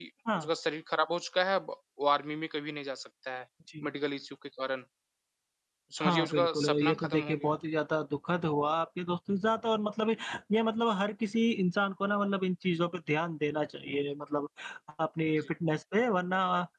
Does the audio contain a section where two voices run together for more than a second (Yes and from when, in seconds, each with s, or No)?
Yes, from 6.0 s